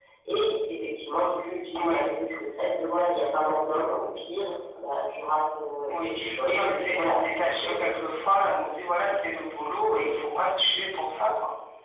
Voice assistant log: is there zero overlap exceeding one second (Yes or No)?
No